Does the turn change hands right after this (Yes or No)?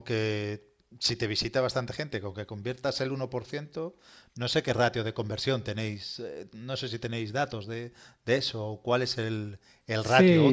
Yes